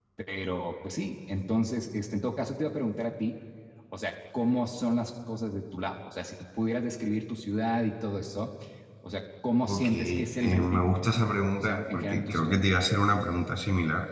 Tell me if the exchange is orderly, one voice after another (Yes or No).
No